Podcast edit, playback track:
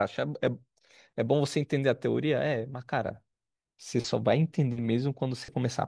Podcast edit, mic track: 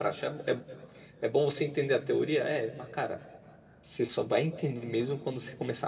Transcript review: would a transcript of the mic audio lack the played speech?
No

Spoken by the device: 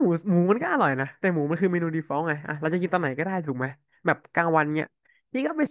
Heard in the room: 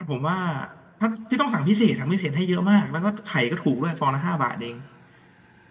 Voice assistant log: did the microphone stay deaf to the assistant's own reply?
Yes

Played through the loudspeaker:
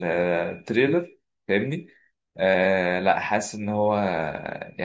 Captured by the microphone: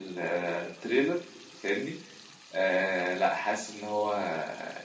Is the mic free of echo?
No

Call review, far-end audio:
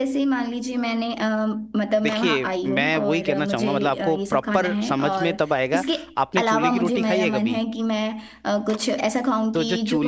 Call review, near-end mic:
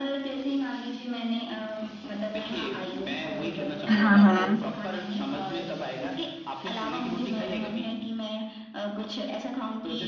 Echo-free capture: No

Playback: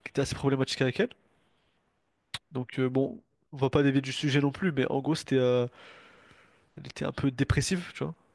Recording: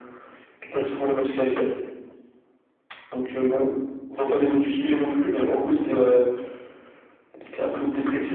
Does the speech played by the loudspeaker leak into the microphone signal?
Yes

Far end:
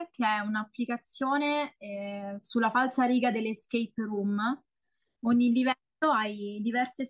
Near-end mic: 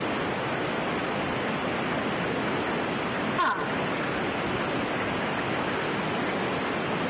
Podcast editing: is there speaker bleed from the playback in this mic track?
No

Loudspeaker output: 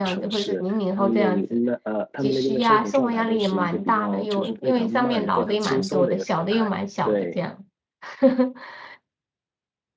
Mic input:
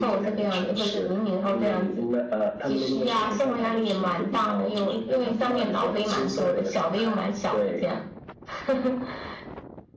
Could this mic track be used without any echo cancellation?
No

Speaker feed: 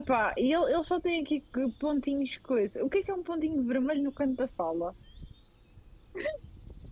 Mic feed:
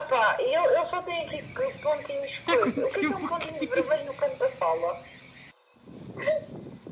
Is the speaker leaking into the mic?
Yes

